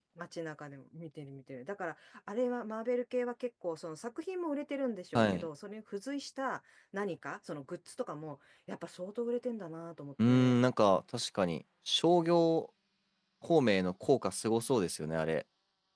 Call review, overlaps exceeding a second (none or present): none